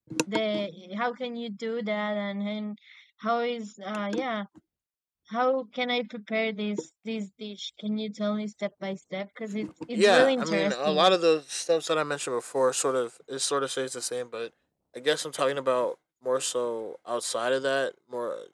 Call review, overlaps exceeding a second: present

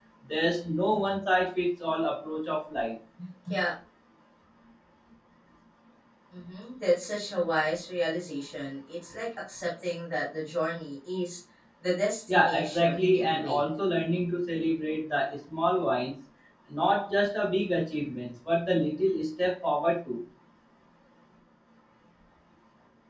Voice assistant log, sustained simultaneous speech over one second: present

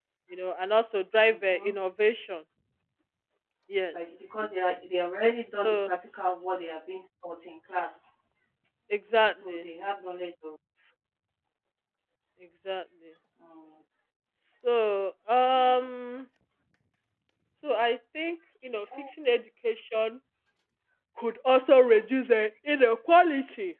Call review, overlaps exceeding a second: none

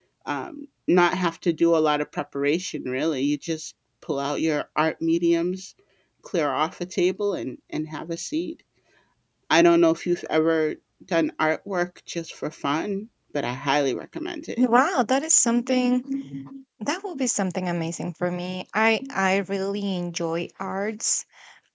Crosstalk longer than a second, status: none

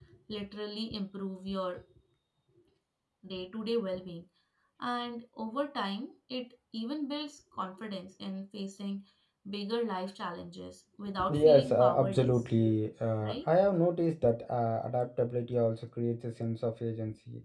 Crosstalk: present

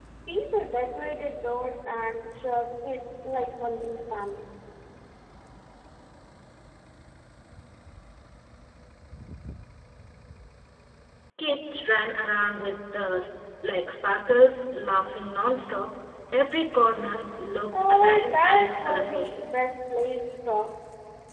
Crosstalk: present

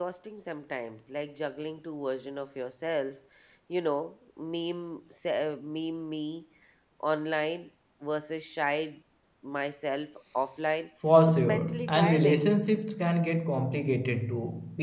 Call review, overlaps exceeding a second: present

